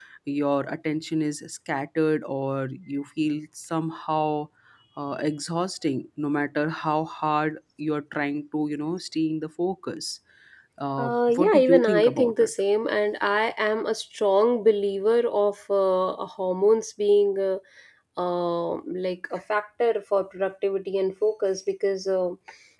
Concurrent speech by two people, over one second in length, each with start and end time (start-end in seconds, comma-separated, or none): 11.0-12.5